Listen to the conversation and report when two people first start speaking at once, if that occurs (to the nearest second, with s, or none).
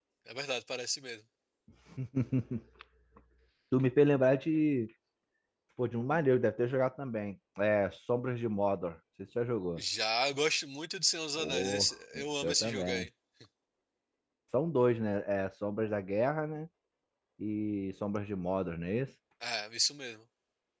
11 s